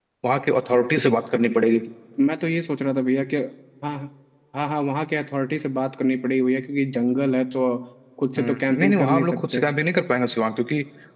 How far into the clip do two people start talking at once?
8.4 s

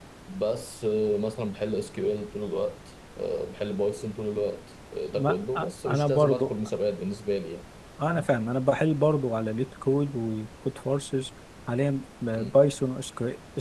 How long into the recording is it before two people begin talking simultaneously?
5.2 s

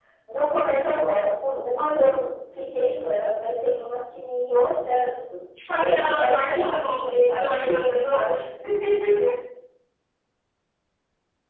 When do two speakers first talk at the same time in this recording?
5.7 s

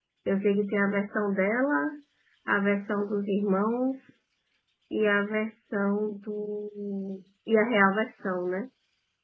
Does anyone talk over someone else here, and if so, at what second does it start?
none

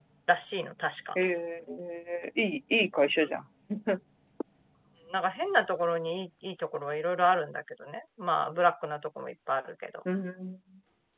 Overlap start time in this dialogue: none

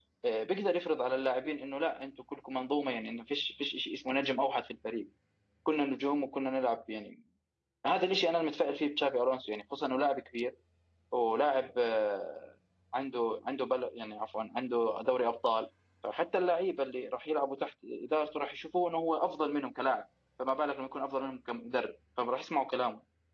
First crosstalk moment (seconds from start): none

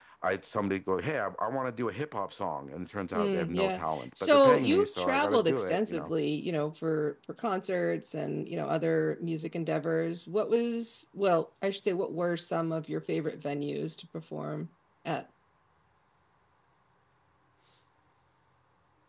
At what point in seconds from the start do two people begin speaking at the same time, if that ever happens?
3.1 s

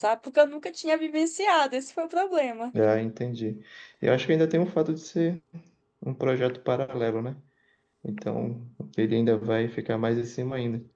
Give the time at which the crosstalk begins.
none

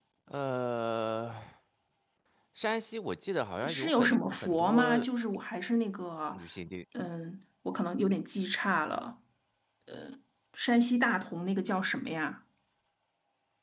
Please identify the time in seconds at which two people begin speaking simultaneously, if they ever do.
3.6 s

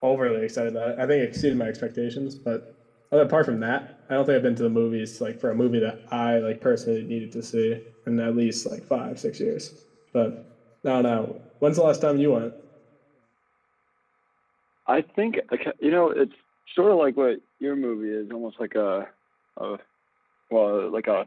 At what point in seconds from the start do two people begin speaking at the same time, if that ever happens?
none

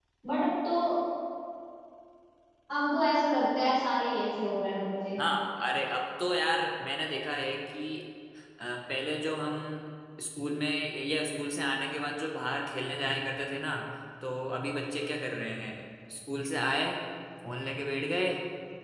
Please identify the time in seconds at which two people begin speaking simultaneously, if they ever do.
none

